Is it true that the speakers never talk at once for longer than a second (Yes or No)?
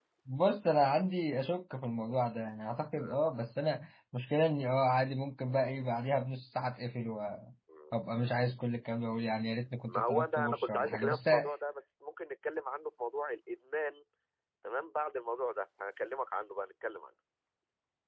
No